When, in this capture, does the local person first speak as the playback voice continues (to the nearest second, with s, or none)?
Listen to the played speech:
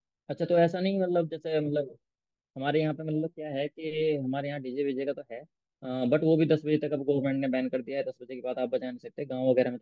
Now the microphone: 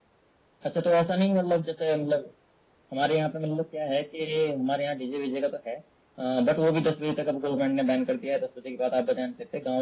none